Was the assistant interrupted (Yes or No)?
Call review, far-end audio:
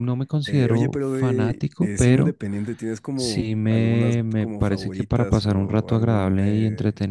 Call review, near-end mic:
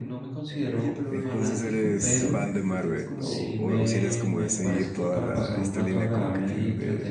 Yes